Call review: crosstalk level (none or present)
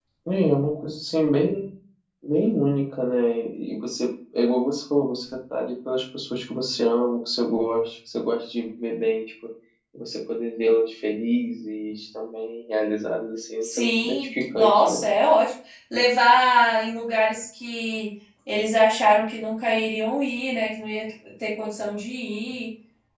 present